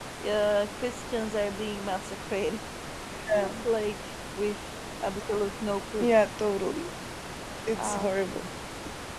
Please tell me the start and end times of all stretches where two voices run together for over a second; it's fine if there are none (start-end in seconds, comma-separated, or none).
none